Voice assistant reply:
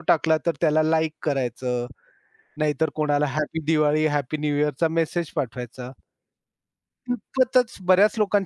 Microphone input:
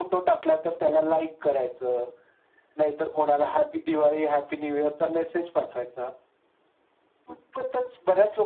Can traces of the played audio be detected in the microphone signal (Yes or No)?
Yes